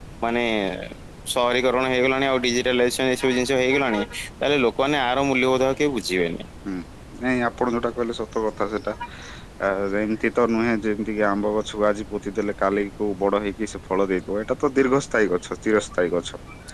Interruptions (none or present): none